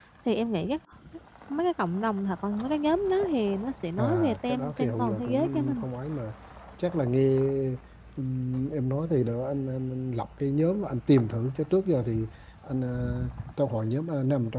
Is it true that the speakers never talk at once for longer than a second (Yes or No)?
No